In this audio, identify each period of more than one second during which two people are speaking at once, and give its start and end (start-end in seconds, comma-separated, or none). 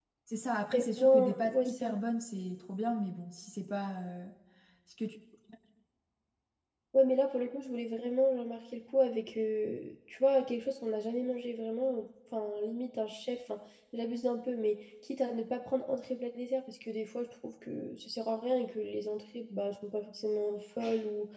0.7-1.9